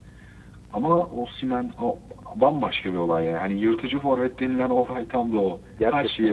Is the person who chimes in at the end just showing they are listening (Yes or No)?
No